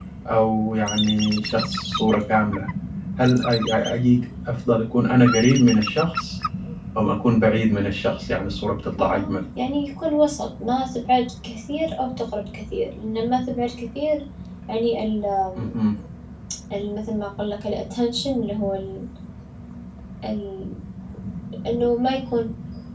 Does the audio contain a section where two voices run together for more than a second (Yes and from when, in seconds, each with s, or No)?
No